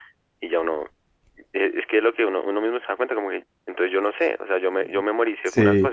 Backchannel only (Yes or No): No